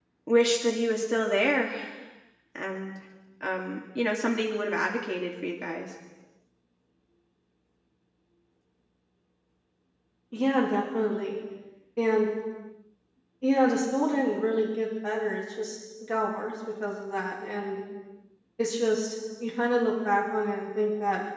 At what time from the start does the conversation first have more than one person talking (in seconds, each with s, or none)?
none